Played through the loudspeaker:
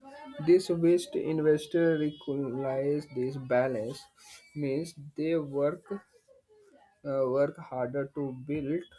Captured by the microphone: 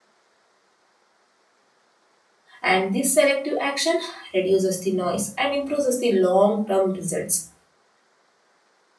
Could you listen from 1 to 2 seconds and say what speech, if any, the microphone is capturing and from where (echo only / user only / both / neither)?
neither